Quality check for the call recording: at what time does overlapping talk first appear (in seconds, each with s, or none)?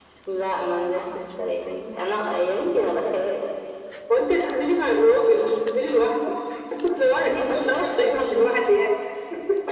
7.2 s